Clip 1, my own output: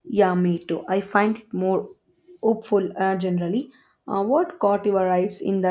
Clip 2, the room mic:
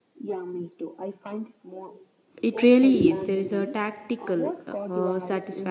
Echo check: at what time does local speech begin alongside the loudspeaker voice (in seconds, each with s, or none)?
2.4 s